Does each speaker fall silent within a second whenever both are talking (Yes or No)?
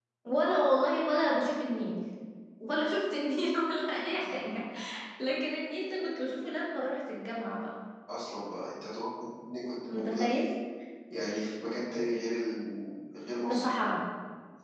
Yes